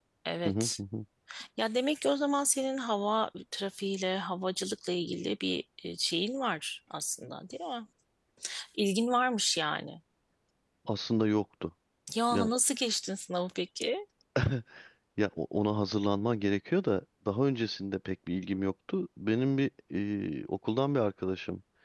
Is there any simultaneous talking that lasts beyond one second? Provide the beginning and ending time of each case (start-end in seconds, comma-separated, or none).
none